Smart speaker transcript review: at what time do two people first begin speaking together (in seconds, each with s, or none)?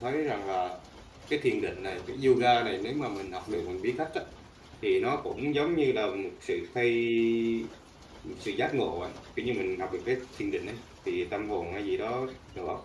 none